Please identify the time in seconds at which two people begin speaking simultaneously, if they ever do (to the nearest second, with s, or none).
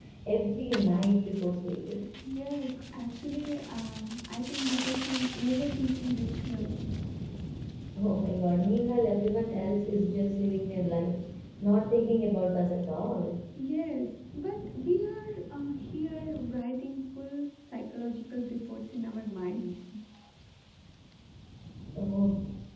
none